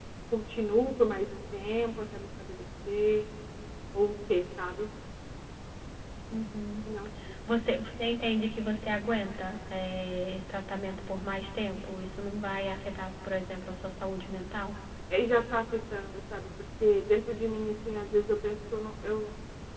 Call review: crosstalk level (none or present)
none